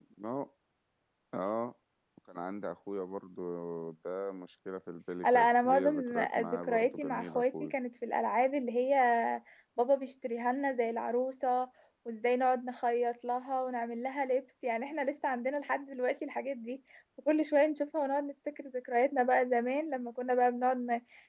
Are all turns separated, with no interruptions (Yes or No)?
No